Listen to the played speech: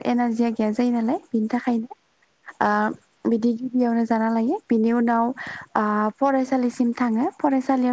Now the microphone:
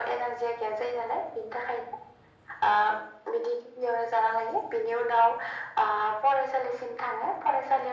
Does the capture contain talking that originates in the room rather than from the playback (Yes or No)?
No